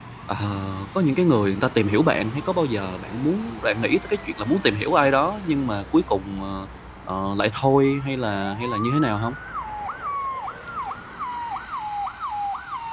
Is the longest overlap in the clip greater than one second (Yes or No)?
No